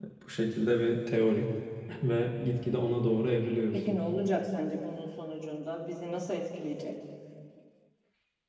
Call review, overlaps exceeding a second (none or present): none